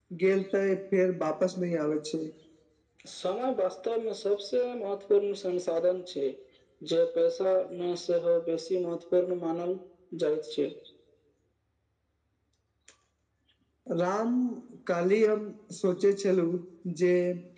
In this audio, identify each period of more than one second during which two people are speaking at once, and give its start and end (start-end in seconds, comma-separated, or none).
none